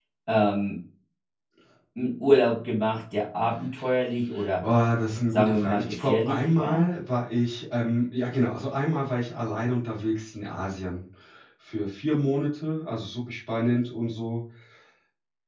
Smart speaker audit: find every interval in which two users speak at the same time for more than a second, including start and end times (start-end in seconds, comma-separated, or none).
5.3-6.9